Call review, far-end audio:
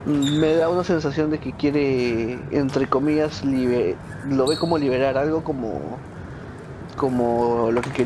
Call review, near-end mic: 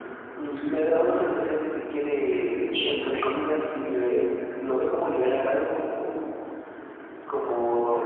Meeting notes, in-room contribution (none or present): present